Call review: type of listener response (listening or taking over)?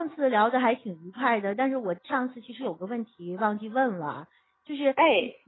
listening